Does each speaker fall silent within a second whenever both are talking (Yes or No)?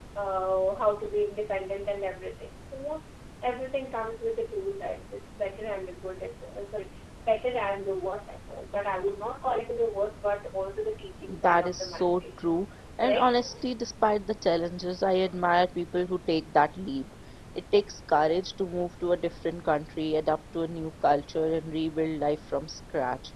No